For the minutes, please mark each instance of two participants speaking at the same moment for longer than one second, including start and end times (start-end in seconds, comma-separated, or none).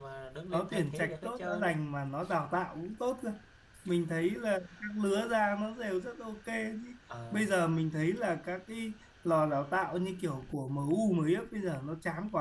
0.5-1.7